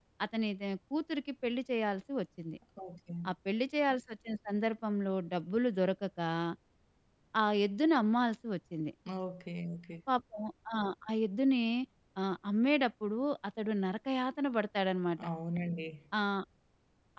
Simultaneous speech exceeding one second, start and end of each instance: none

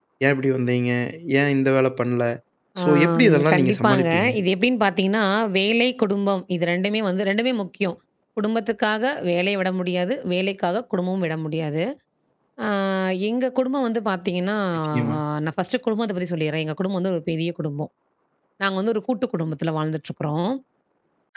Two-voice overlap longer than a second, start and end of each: 2.8-4.3

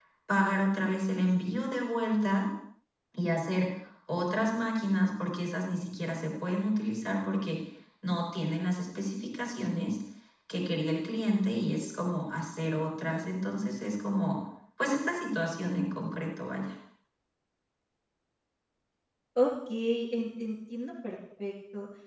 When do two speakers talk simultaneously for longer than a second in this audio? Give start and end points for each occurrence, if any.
none

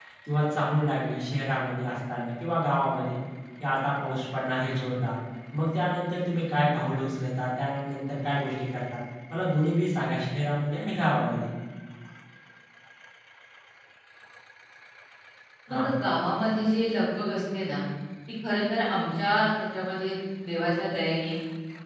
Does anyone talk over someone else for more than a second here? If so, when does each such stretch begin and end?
none

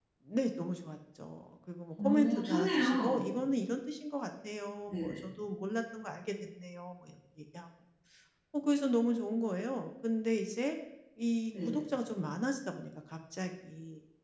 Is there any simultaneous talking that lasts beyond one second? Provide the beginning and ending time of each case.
2.0-3.4

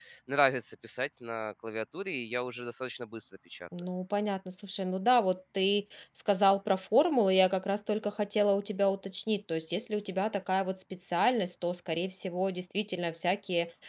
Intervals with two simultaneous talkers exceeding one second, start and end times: none

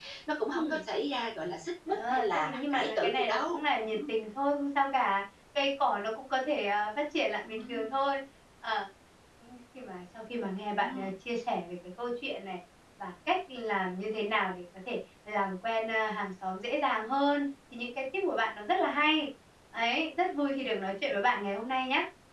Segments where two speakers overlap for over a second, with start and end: 1.9-4.1

